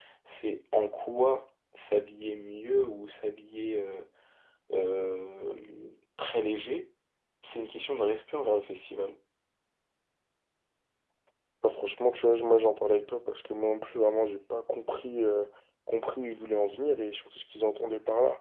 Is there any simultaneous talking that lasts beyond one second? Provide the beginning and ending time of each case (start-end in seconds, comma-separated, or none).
none